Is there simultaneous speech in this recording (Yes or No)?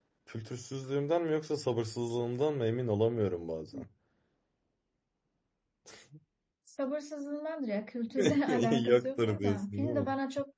Yes